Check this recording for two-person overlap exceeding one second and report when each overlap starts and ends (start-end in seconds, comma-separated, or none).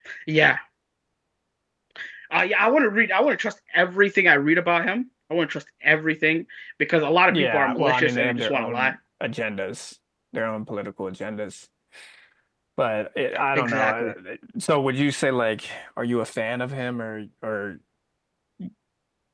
7.3-9.0